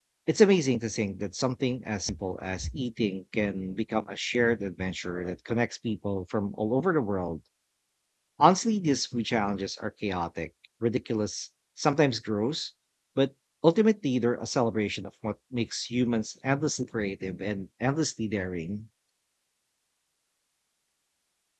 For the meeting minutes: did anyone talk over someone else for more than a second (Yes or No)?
No